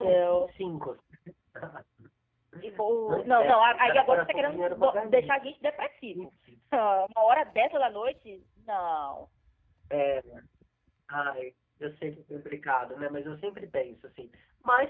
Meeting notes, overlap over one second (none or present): present